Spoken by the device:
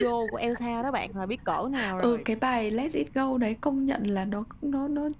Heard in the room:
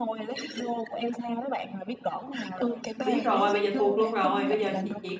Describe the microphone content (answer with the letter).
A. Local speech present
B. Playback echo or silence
A